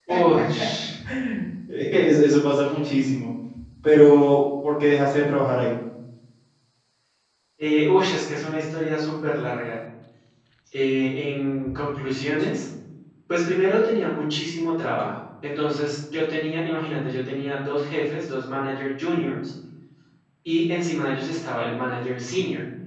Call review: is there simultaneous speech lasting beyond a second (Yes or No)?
No